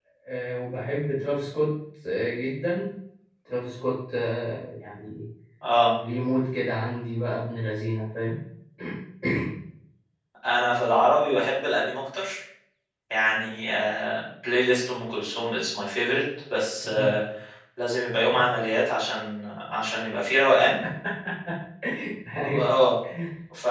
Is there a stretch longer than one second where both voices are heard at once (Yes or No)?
No